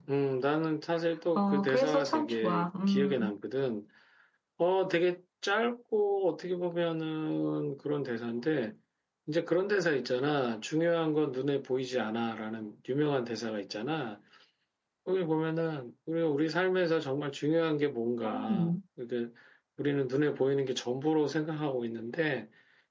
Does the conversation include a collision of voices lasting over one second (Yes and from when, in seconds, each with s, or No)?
Yes, from 1.4 s